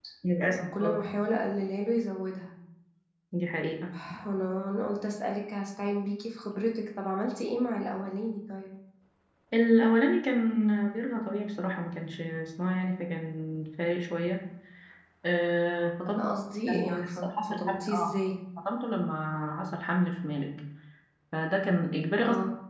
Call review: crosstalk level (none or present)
present